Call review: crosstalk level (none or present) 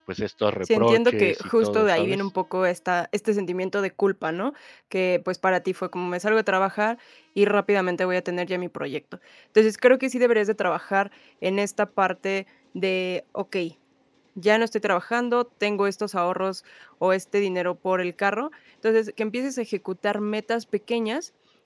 present